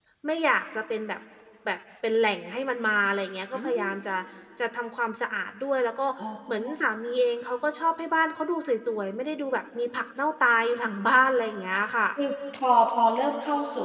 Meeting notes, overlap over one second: none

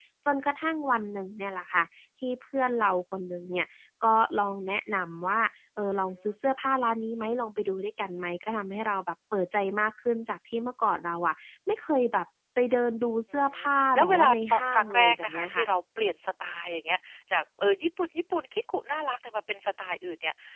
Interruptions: present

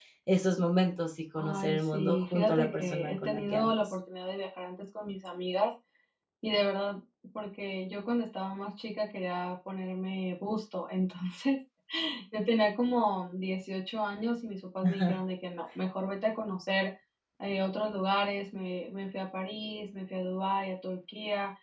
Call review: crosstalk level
present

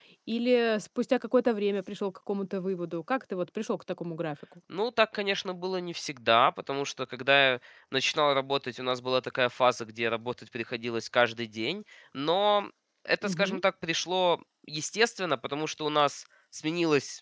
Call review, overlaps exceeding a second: none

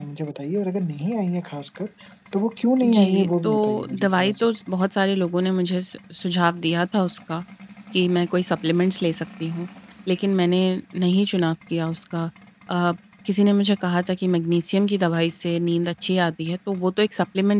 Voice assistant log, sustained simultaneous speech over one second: present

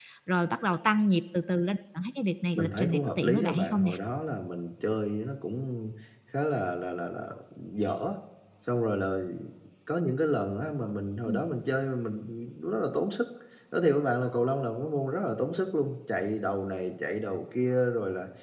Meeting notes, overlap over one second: present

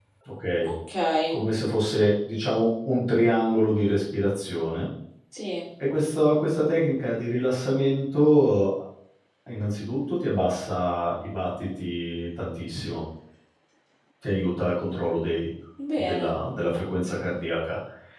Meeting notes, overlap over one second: none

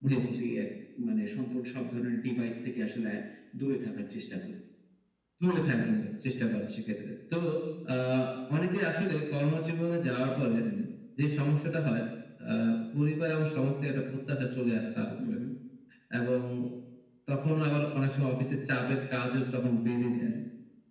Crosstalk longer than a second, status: none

